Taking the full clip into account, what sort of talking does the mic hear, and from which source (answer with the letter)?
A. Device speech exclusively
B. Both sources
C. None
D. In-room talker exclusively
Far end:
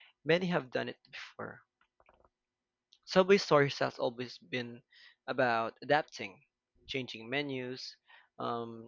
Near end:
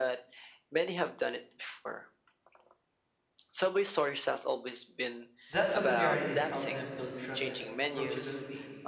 B